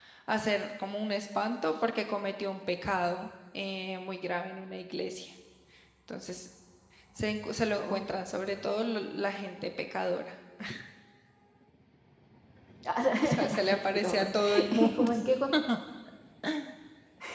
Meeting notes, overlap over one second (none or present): present